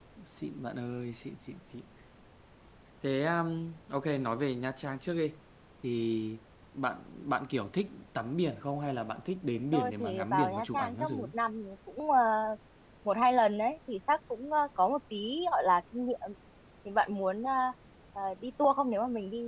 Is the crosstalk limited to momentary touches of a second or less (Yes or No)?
No